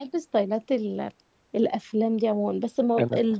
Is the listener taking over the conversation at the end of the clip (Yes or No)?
No